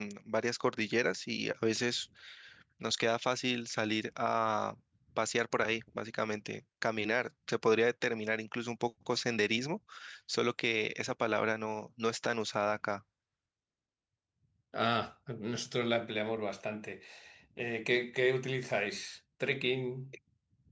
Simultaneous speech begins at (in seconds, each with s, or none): none